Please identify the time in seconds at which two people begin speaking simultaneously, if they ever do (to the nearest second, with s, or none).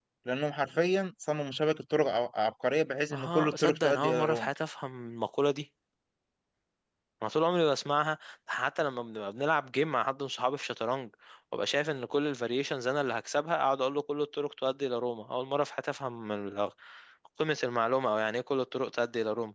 3 s